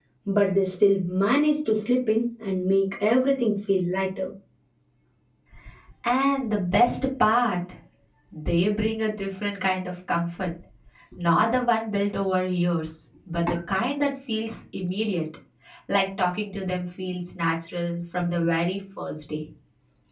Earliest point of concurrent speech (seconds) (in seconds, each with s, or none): none